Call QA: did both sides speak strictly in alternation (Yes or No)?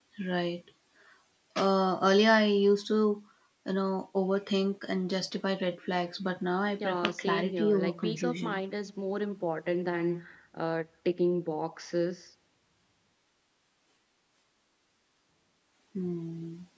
No